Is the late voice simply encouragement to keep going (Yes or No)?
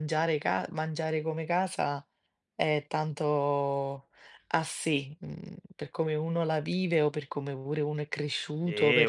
No